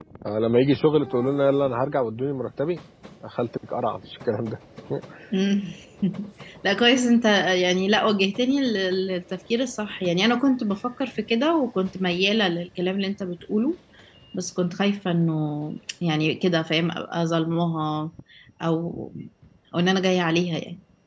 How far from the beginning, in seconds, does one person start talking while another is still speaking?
none

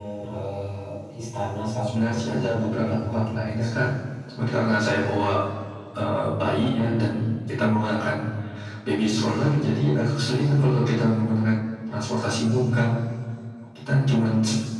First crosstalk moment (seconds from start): 1.9 s

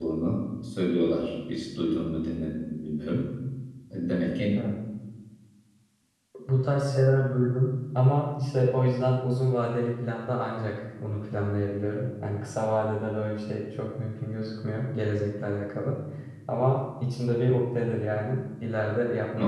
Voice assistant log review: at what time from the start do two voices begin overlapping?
none

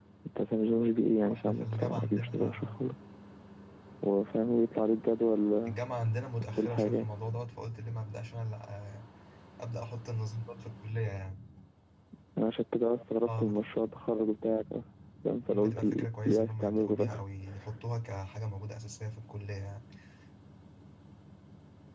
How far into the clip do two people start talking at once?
1.2 s

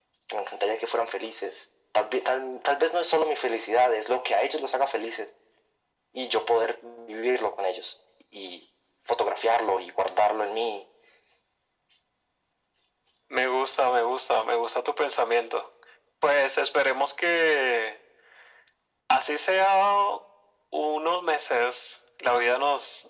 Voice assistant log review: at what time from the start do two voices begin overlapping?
none

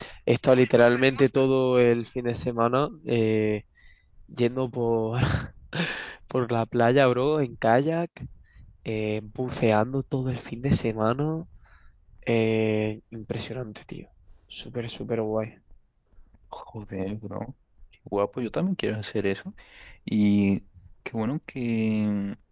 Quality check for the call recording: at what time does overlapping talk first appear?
none

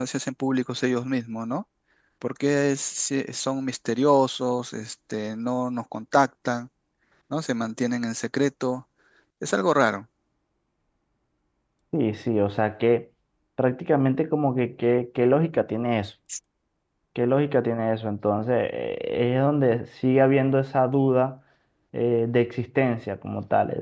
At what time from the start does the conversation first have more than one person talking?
none

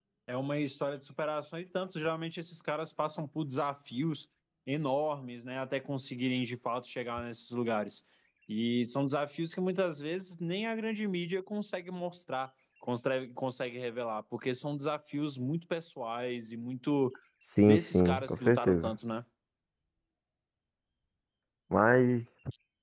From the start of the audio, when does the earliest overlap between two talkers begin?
17.6 s

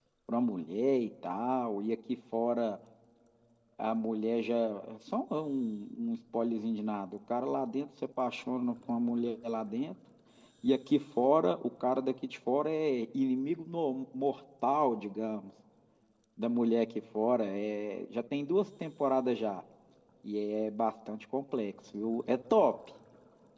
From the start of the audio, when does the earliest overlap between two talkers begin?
none

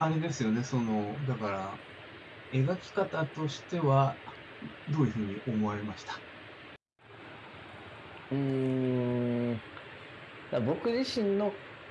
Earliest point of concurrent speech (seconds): none

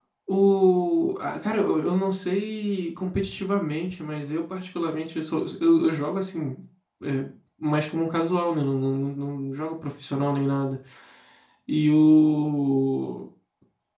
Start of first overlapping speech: none

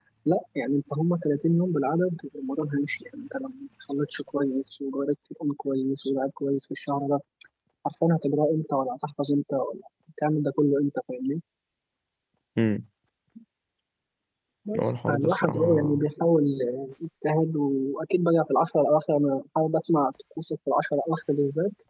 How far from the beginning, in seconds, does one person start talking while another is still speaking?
14.8 s

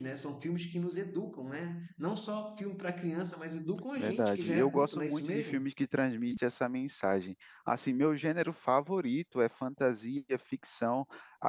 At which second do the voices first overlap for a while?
4.0 s

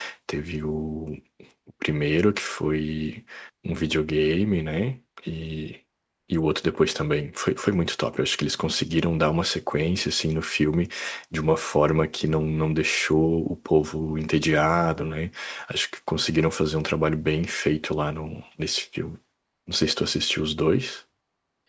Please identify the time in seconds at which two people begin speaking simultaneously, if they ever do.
none

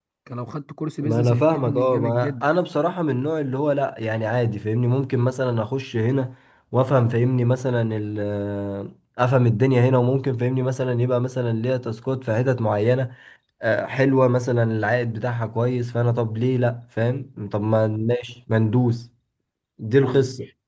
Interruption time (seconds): 1.0 s

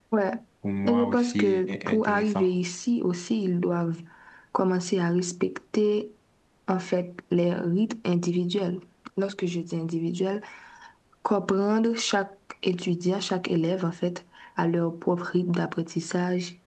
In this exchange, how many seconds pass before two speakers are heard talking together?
0.8 s

